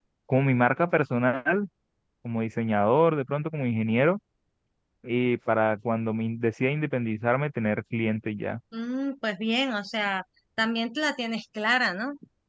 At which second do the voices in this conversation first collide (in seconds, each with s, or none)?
none